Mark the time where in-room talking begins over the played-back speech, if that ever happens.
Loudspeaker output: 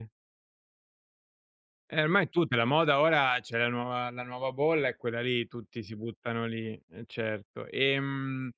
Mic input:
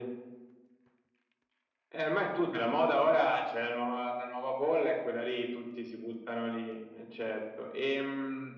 none

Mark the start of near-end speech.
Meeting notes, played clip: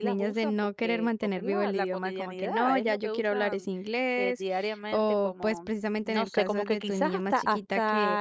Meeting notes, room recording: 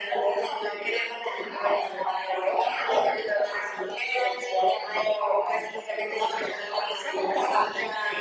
none

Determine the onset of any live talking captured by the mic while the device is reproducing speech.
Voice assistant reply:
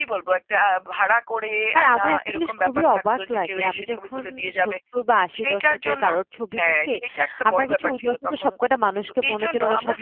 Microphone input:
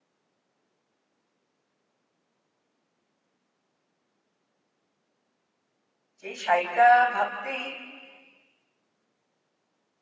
6.2 s

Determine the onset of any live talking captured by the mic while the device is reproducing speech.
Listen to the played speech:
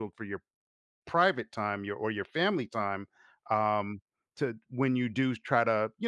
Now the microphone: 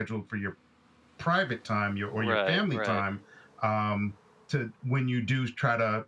2.1 s

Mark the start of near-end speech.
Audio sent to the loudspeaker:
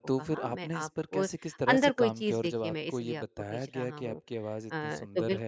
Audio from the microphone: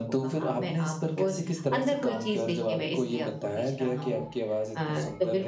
none

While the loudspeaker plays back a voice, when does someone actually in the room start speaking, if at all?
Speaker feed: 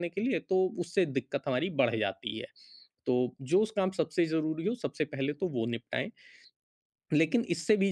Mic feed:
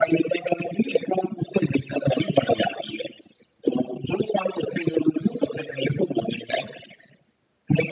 none

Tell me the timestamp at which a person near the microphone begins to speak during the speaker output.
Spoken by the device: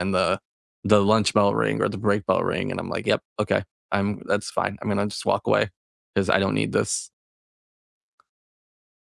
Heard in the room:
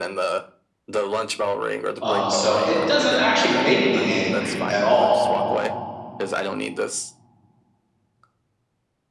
2.0 s

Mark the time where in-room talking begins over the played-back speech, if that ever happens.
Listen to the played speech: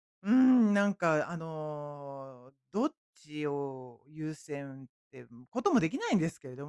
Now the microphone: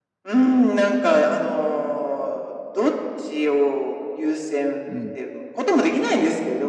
4.9 s

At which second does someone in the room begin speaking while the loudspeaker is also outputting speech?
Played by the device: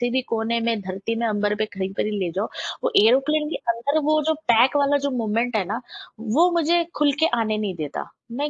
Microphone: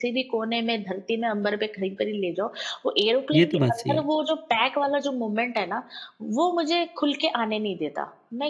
3.3 s

